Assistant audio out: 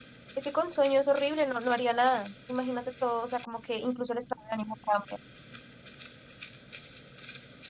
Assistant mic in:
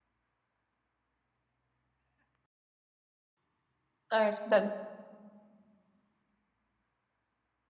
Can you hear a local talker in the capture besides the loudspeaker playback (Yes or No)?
Yes